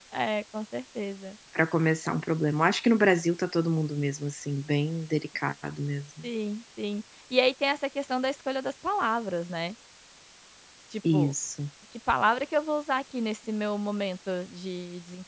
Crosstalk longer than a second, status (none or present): none